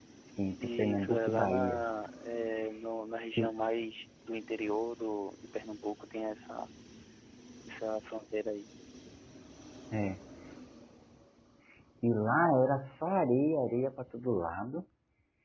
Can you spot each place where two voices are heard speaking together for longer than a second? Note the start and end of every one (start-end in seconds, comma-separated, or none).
0.6-1.8